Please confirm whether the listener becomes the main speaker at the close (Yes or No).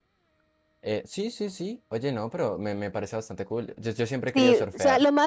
Yes